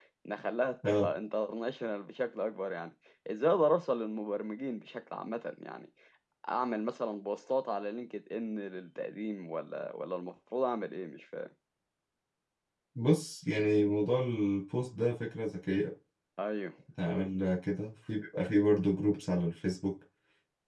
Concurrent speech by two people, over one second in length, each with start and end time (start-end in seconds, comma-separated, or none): none